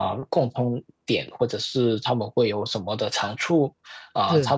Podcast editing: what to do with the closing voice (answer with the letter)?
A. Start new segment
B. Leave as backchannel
B